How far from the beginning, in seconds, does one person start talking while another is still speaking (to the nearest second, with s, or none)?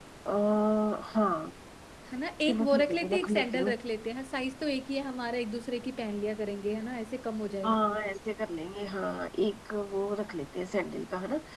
2 s